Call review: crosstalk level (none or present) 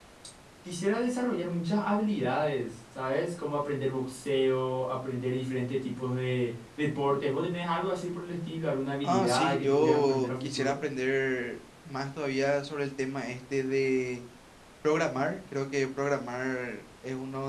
present